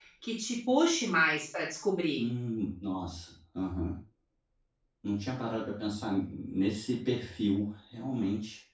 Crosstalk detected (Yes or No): No